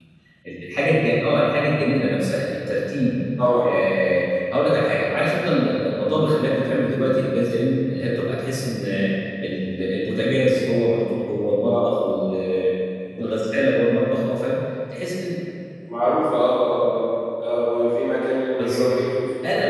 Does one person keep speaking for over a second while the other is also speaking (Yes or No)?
No